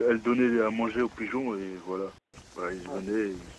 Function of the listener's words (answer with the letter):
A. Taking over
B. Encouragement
A